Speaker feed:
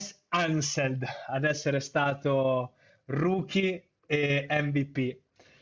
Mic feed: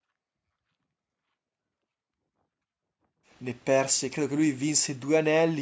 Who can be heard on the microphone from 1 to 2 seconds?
neither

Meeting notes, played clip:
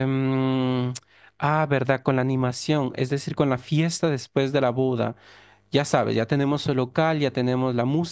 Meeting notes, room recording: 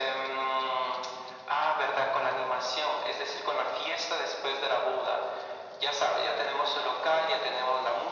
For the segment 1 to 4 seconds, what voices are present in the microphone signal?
echo only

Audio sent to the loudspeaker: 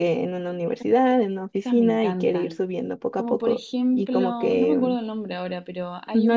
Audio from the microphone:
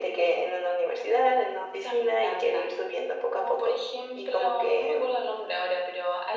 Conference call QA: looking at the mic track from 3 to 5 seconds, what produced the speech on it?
echo only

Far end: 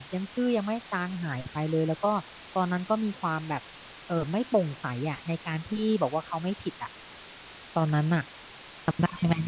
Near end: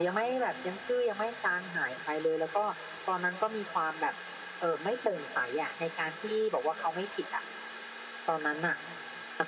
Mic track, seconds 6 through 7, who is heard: echo only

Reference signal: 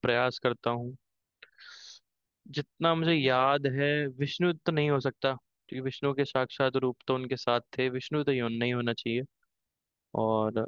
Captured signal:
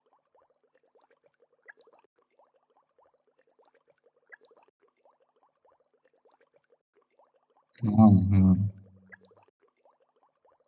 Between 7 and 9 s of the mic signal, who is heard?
user only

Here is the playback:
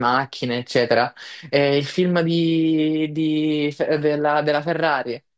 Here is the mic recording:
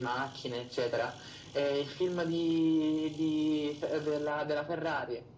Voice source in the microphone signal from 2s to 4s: echo only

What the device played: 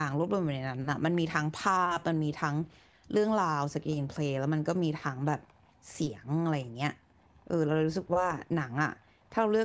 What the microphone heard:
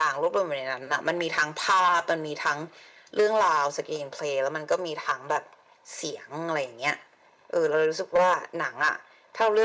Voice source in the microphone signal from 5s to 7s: echo only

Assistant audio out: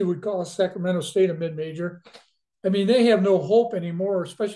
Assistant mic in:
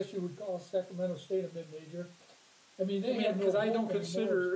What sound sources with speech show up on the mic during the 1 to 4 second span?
both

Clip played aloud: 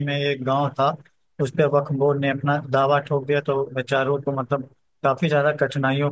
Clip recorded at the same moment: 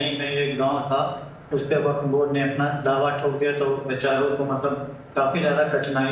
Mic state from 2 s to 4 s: echo only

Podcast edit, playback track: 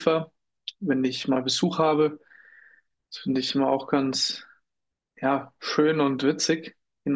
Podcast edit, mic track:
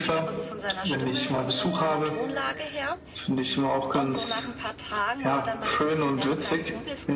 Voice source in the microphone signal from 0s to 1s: both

